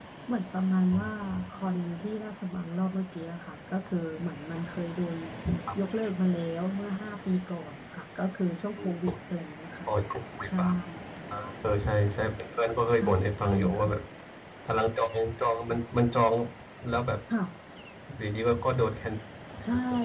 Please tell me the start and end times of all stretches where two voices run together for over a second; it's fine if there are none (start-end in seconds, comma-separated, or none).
none